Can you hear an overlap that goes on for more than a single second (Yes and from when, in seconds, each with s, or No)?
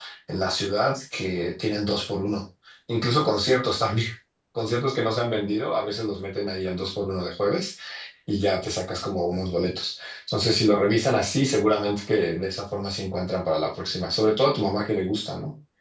No